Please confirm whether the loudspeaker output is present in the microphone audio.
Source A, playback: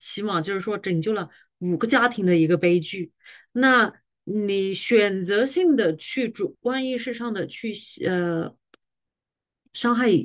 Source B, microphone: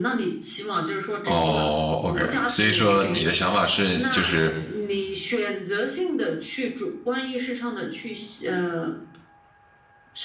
Yes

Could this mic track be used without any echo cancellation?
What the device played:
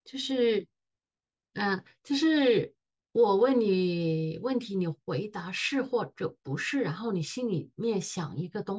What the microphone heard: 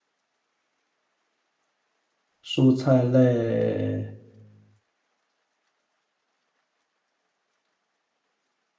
Yes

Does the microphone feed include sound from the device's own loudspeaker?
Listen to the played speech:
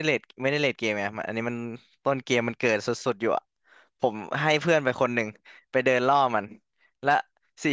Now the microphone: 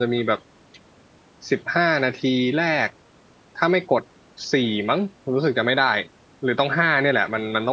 No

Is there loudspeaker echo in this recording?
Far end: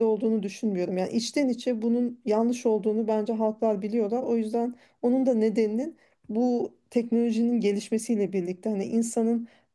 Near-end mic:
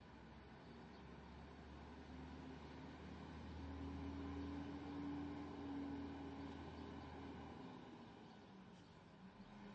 No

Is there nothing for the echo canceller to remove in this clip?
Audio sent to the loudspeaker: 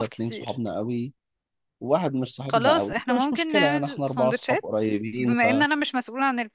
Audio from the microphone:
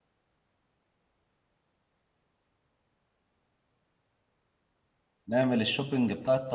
Yes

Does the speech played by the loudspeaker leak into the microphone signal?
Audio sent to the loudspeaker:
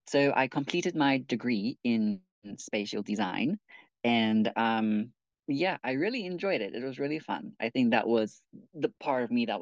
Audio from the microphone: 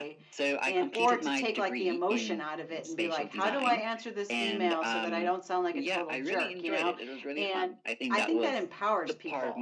Yes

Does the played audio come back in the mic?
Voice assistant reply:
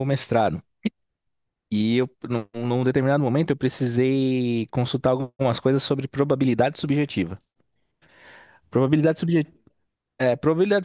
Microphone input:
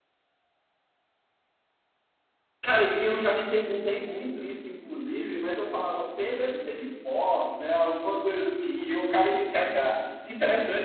No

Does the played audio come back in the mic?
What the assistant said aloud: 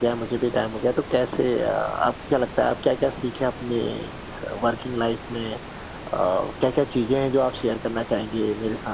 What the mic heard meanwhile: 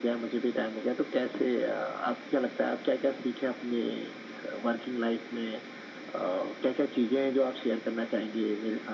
Yes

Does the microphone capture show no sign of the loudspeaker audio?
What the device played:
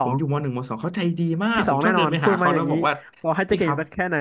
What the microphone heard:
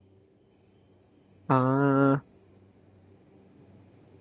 Yes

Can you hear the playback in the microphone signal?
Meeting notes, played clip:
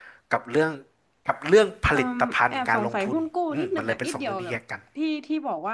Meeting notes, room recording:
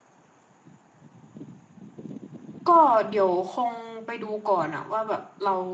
No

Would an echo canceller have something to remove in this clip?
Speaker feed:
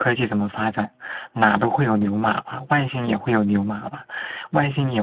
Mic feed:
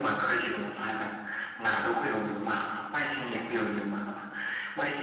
Yes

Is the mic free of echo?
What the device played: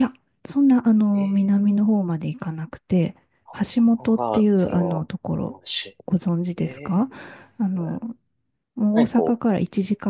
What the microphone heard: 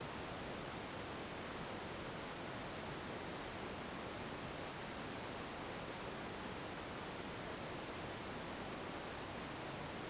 Yes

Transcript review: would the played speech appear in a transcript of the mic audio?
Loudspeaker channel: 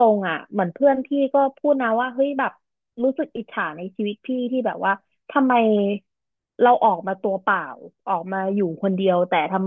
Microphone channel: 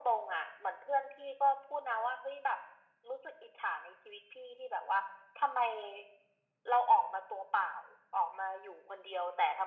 Yes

